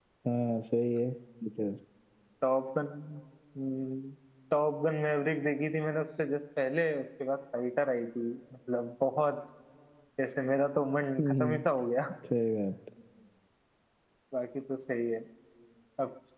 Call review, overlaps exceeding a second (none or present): none